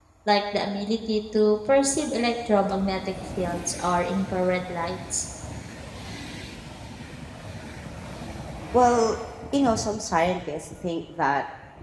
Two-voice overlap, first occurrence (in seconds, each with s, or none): none